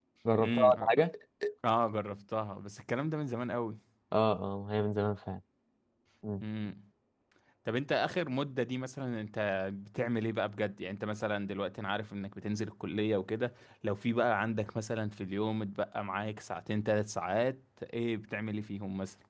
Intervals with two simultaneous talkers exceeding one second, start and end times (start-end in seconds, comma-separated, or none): none